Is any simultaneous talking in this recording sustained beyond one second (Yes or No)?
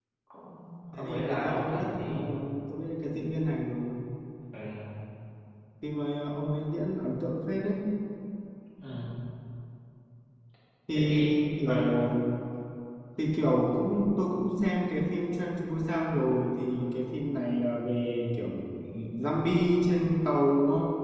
Yes